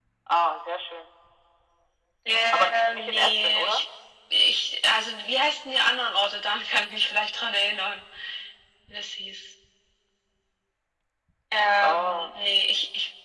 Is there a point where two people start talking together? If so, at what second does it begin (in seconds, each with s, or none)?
2.5 s